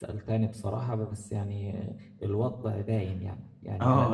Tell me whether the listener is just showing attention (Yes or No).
No